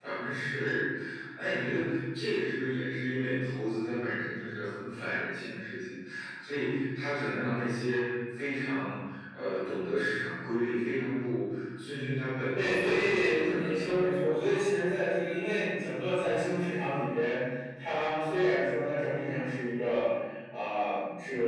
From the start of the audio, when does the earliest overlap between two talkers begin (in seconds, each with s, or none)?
12.5 s